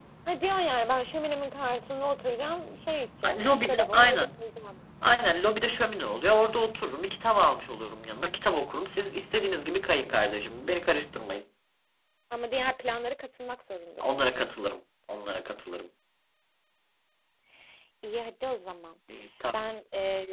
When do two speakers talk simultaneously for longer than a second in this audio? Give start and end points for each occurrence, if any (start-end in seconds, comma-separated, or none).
3.2-4.5